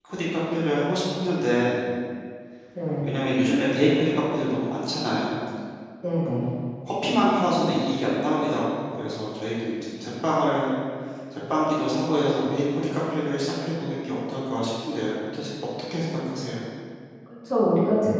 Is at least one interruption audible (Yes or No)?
No